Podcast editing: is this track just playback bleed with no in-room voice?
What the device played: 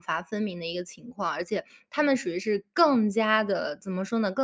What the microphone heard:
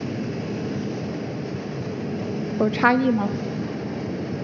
No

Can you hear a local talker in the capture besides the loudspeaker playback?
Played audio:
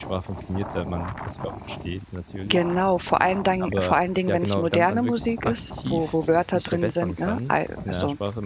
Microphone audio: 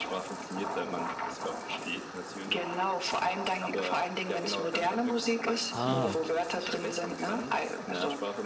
Yes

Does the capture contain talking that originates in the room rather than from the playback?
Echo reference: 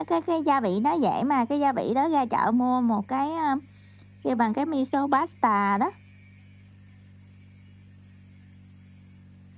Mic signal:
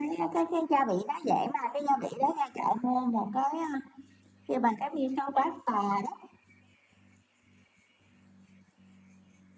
No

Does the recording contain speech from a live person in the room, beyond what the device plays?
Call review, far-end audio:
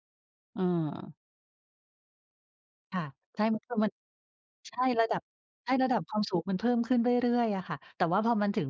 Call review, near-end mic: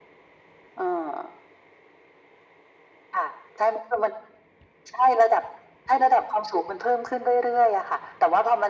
No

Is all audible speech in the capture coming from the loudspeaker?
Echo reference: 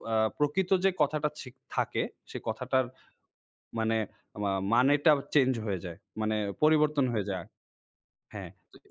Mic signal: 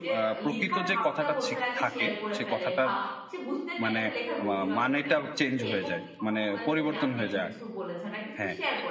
No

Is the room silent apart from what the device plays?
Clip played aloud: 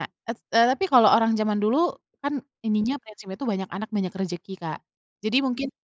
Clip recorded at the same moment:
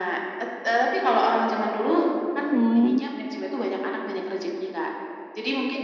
No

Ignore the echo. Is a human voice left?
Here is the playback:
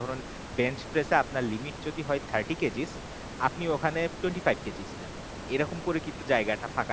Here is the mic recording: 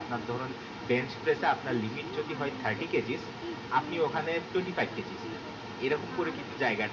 Yes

